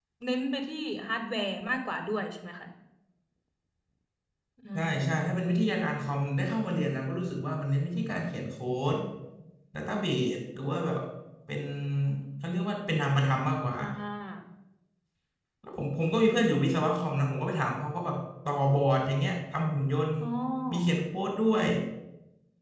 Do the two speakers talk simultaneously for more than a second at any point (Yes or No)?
No